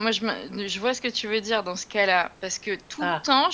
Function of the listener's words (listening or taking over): listening